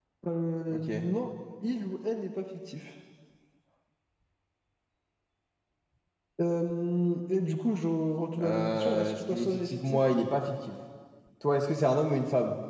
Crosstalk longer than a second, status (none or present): present